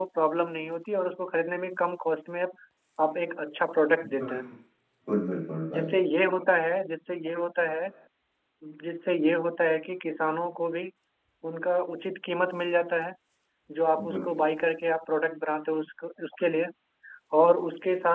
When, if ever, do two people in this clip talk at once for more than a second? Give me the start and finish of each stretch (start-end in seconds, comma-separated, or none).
none